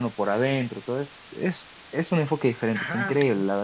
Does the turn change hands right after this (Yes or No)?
Yes